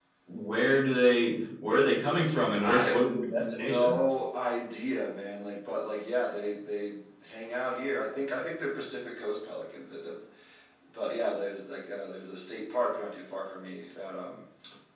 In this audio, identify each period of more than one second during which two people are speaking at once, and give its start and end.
2.6-4.0

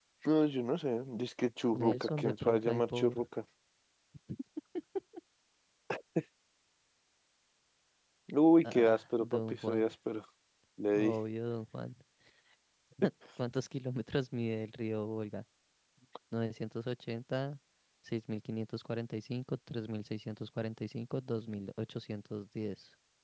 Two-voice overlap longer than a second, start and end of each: 1.7-3.2, 8.6-9.8

